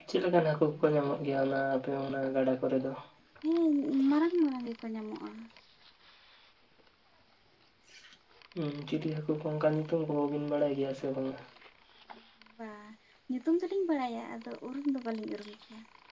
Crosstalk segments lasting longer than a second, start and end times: none

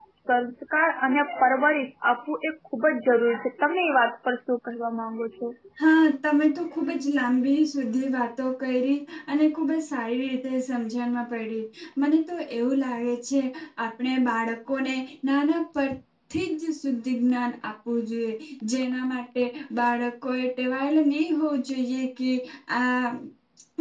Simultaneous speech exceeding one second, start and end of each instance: none

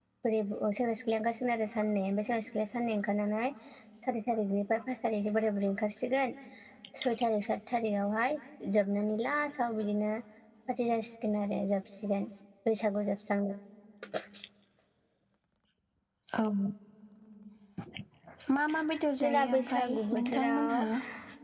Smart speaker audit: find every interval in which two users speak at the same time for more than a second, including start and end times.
19.2-20.8

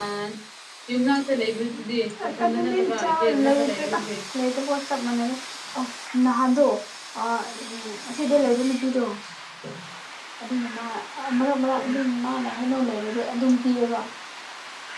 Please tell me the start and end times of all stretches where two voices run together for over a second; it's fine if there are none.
2.4-4.0

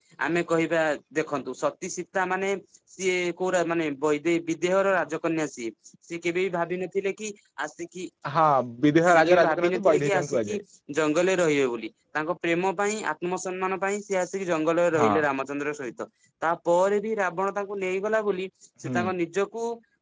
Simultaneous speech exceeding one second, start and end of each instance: 9.1-10.6

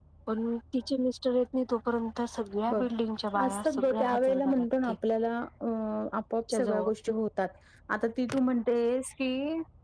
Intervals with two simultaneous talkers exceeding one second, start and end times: 3.4-4.9

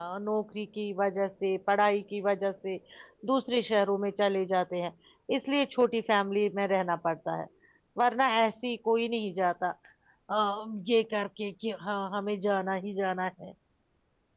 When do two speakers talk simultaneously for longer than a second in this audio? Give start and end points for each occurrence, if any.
none

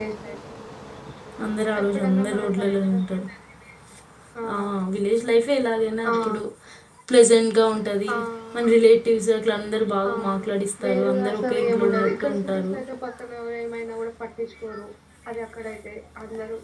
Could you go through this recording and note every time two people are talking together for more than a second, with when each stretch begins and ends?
1.8-3.0, 10.8-12.7

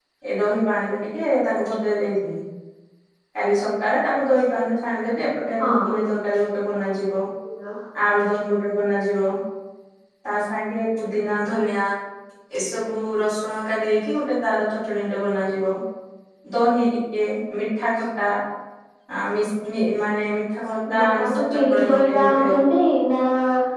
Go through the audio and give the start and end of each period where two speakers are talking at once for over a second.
21.0-22.6

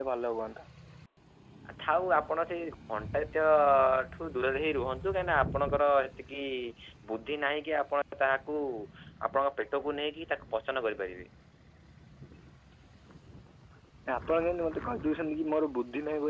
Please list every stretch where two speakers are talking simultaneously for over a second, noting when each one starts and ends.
none

